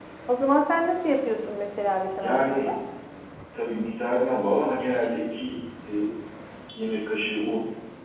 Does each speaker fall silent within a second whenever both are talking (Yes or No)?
Yes